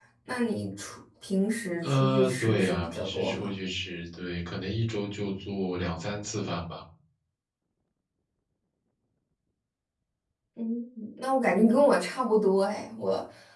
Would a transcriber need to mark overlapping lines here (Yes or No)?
Yes